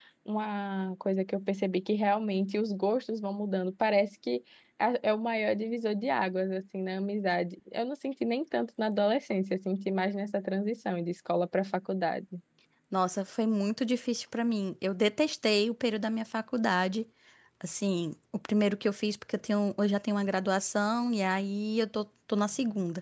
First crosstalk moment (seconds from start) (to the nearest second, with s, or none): none